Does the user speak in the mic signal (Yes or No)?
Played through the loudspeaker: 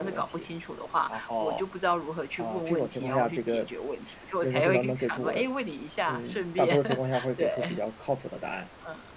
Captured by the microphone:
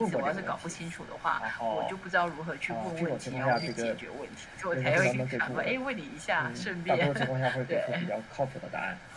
No